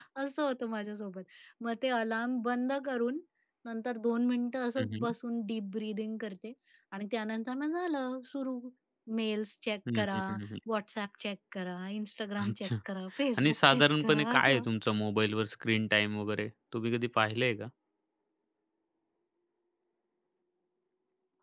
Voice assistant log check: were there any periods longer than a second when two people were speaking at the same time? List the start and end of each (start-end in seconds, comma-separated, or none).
13.4-14.6